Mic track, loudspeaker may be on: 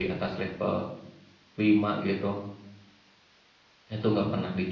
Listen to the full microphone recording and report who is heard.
user only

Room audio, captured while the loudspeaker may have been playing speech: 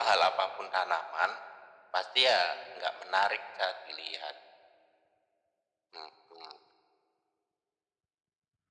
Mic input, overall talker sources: echo only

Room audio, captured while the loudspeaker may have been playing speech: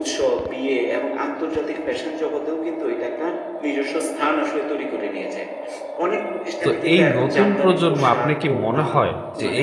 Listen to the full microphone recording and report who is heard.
both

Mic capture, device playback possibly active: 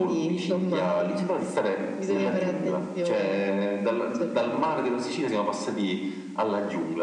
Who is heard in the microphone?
echo only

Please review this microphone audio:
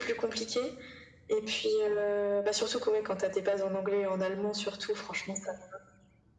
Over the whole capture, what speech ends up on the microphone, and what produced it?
echo only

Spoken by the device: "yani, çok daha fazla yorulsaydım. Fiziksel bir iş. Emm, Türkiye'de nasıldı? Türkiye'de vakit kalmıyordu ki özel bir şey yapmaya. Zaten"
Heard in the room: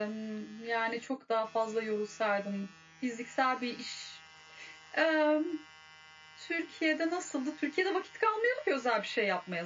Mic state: echo only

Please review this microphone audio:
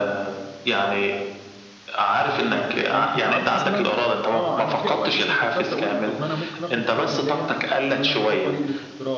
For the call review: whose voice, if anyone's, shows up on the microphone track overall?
both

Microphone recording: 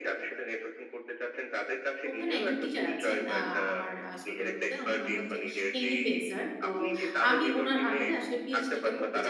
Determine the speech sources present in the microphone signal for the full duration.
both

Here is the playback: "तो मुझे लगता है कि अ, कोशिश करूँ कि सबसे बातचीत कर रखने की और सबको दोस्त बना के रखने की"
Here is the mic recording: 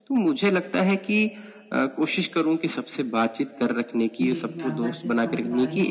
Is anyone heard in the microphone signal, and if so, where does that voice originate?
both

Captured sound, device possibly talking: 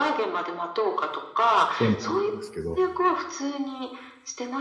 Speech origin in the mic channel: both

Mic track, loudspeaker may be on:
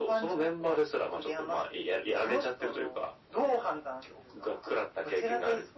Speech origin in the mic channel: echo only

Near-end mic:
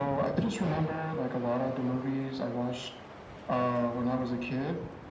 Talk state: echo only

